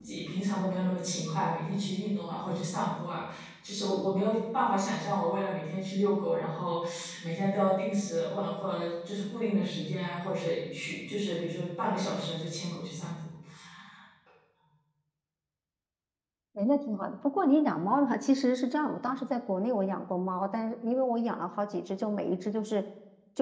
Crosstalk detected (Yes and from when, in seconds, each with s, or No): No